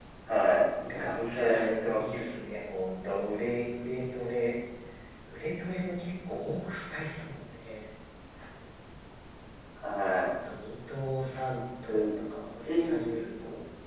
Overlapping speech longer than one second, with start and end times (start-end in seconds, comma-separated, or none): 0.9-2.2